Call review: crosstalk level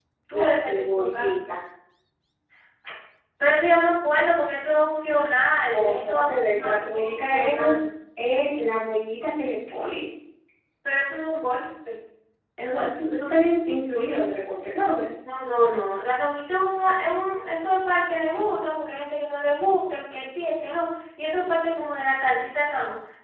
present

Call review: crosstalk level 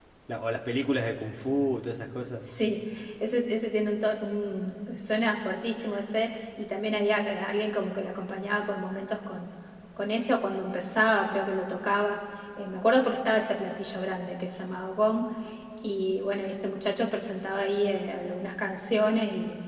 none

